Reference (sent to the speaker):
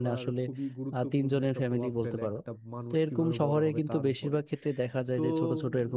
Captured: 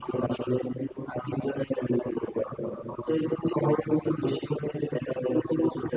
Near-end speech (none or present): none